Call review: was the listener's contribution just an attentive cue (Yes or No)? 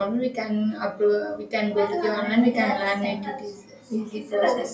No